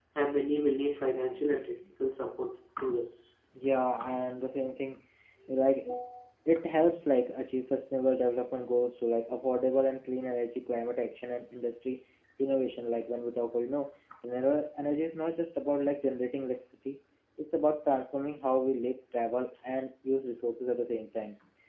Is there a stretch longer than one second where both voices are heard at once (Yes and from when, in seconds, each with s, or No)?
No